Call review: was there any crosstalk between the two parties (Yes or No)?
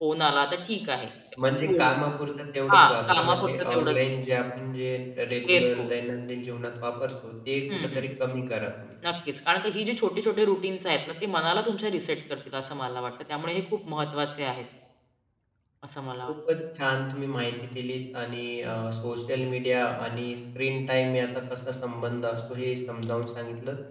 Yes